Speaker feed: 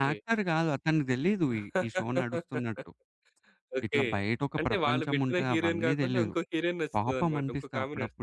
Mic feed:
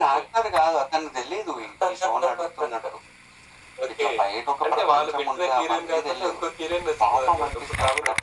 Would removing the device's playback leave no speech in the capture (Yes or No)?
Yes